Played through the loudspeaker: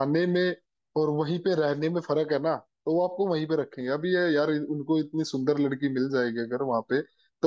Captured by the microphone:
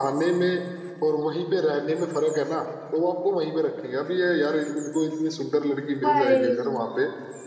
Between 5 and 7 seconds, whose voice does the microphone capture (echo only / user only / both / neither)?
both